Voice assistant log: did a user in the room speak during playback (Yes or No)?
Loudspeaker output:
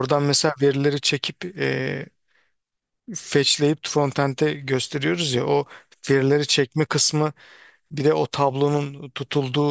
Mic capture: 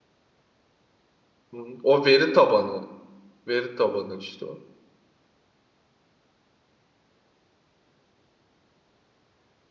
Yes